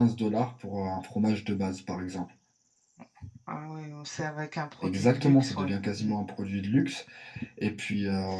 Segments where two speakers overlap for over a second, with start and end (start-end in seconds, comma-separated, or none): 4.8-6.1